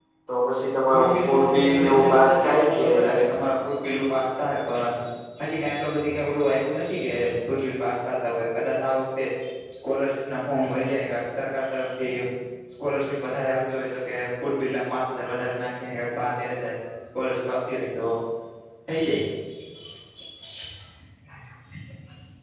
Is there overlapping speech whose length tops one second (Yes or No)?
Yes